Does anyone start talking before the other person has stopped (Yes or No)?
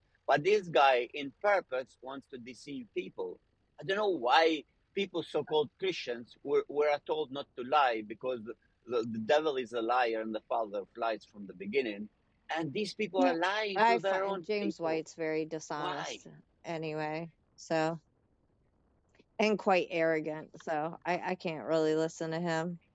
Yes